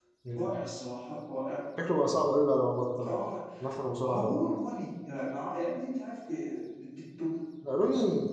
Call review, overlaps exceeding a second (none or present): none